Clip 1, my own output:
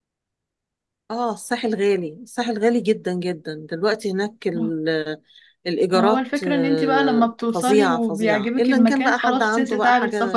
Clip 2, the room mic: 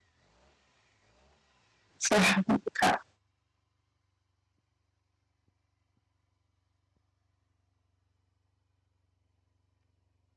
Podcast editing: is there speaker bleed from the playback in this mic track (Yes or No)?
No